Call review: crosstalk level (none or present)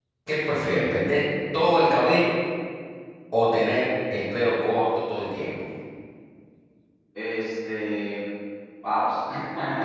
none